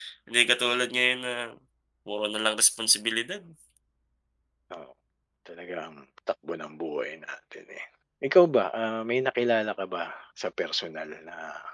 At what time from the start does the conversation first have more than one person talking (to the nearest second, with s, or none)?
none